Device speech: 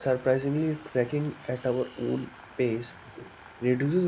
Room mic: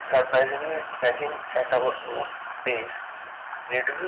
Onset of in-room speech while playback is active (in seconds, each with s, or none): none